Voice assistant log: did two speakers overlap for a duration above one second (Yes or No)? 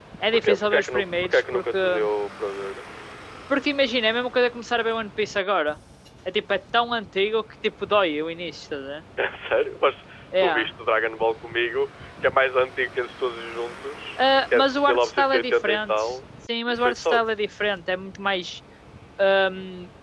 Yes